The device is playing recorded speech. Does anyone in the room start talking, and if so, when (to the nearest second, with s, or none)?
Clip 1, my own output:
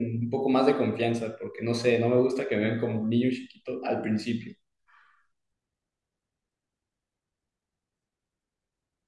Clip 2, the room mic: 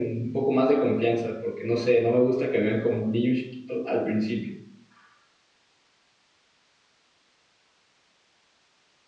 none